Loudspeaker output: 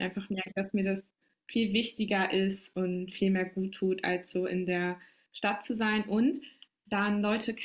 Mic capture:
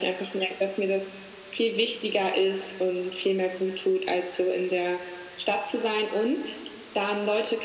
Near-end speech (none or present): none